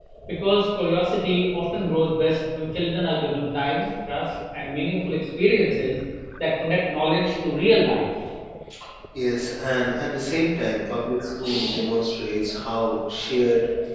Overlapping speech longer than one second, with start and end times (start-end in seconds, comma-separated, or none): none